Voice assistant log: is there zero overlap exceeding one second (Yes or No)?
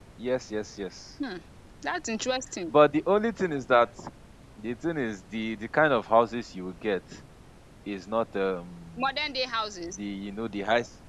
Yes